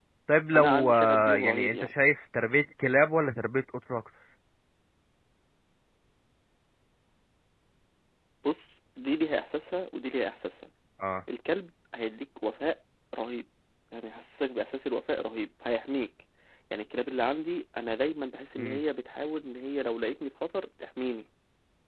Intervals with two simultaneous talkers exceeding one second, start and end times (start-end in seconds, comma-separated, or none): 0.6-1.9